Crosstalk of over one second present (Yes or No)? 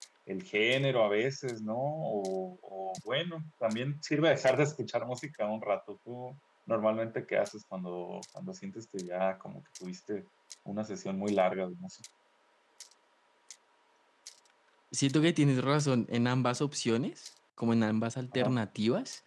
No